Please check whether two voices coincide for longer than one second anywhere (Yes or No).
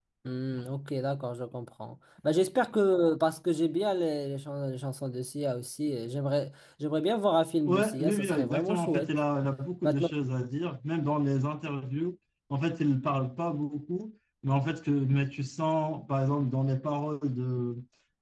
Yes